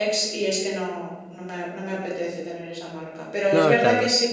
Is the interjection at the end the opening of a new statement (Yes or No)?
No